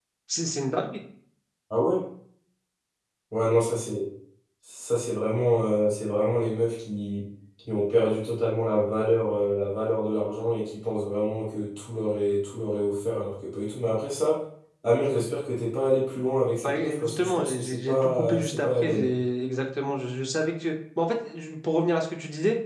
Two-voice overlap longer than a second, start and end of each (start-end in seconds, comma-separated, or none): 16.6-19.1